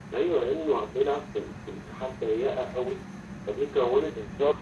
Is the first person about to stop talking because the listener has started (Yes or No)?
No